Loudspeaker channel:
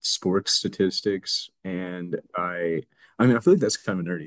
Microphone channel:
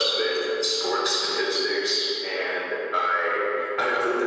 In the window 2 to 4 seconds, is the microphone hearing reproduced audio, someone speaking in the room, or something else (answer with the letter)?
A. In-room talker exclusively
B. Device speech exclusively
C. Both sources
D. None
B